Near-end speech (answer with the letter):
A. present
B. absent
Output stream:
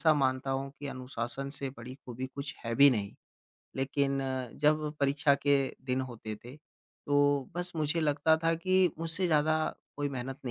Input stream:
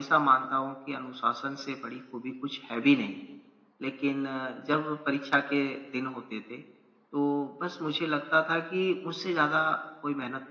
B